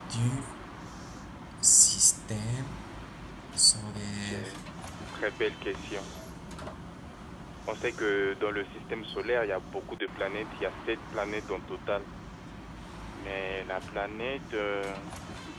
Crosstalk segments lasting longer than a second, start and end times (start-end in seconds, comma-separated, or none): none